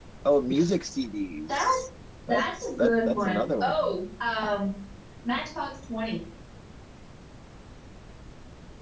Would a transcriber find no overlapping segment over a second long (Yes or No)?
No